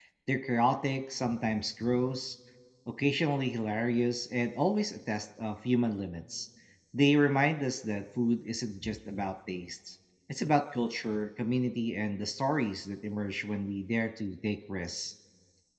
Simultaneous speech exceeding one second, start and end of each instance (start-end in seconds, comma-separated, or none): none